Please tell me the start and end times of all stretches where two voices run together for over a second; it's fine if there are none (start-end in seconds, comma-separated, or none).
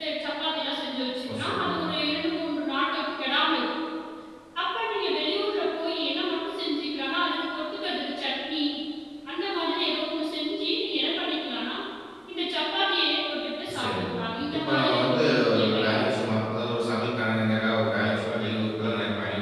14.6-16.2